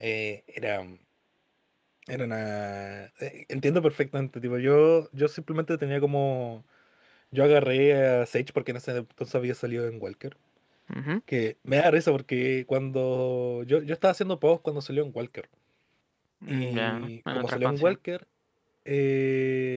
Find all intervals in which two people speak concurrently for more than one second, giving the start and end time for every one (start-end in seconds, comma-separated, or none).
16.5-17.9